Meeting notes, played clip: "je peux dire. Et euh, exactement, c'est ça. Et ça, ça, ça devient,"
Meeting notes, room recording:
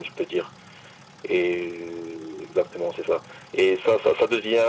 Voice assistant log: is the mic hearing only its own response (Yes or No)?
Yes